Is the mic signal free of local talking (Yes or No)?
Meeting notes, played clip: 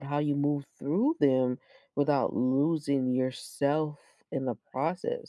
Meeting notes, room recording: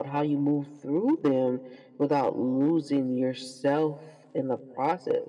Yes